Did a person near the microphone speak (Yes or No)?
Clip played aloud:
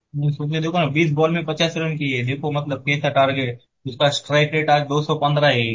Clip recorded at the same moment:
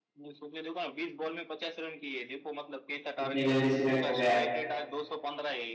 Yes